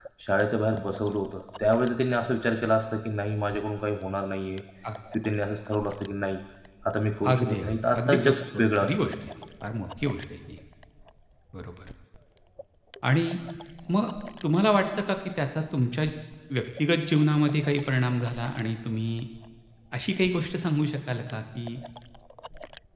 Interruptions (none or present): present